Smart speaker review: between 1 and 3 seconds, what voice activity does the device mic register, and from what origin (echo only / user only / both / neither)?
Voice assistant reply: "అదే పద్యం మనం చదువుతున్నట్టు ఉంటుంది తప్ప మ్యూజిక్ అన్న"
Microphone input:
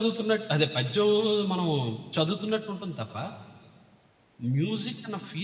echo only